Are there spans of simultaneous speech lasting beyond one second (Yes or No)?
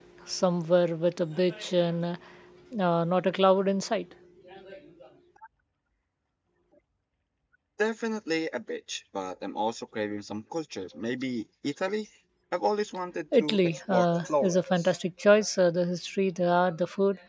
Yes